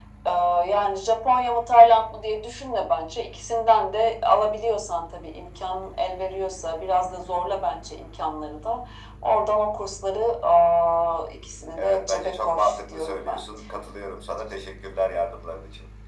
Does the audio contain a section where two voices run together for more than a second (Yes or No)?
Yes